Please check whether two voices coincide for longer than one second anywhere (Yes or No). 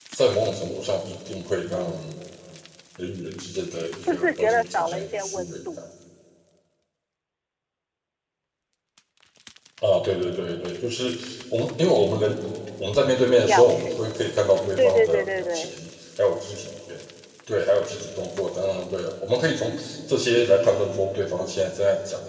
Yes